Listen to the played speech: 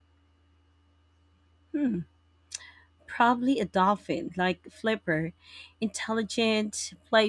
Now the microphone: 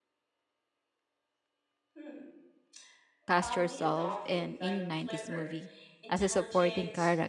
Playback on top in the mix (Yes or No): No